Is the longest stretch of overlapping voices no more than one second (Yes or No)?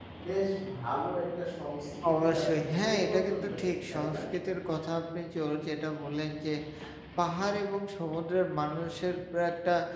No